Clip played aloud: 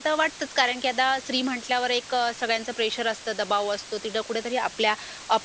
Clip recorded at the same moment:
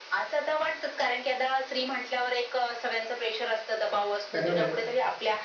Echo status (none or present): present